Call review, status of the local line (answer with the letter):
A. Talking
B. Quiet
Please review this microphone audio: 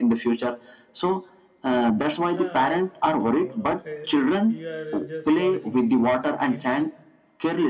A